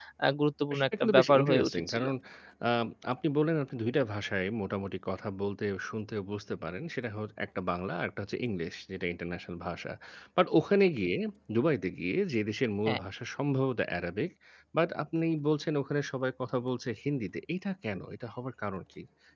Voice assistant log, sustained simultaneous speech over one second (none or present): present